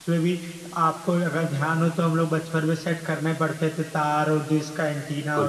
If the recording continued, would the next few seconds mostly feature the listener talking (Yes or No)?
No